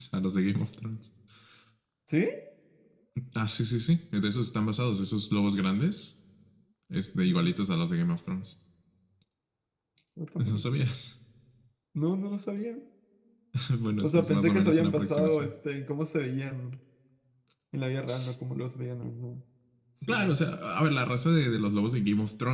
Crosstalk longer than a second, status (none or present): present